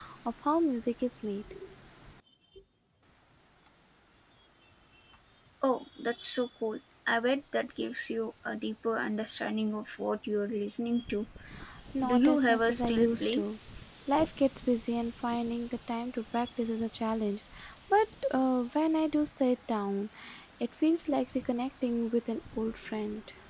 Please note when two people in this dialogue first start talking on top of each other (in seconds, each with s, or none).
12.1 s